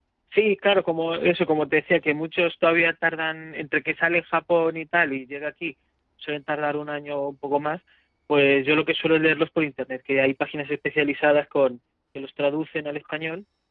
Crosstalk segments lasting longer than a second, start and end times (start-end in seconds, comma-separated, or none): none